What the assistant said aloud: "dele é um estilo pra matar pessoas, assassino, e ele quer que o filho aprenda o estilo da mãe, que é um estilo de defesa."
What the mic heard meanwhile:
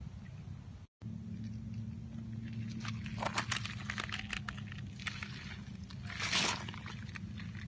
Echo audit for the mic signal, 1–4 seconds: neither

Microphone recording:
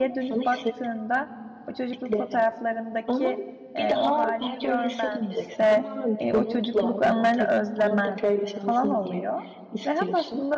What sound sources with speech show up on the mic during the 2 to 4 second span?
both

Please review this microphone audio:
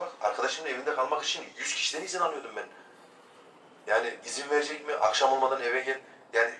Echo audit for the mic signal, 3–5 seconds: echo only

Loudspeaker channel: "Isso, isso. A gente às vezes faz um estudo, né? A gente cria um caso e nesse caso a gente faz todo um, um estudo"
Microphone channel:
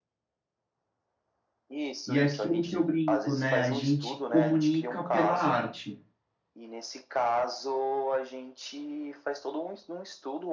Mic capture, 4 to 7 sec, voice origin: both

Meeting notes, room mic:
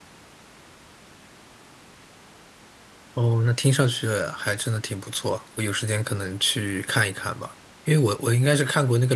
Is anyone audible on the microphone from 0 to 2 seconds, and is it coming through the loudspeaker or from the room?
neither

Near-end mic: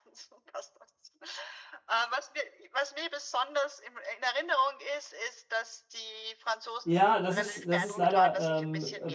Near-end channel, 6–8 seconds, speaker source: both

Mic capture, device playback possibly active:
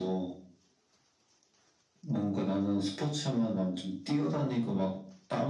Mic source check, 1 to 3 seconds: echo only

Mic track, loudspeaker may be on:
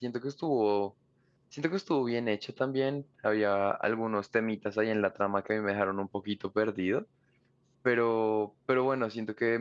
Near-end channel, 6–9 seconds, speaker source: user only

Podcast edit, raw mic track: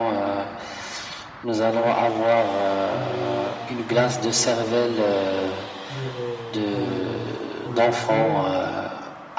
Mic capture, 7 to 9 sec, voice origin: both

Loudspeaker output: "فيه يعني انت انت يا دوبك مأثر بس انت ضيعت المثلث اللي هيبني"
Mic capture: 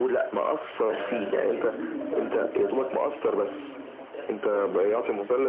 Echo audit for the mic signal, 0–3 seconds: both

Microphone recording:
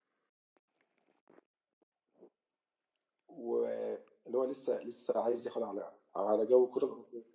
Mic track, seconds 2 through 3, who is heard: neither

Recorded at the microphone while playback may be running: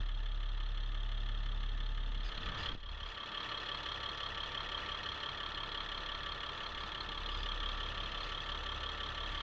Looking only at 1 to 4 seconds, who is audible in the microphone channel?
neither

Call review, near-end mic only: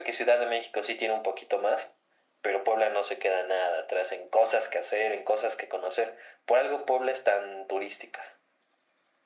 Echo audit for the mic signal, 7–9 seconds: echo only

